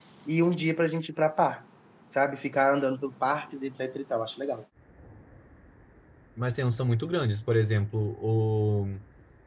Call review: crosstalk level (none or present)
none